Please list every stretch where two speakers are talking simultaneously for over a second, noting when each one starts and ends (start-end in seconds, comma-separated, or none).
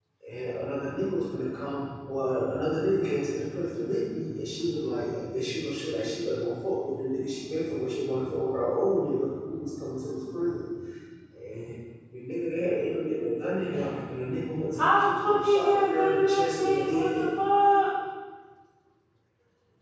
14.8-17.3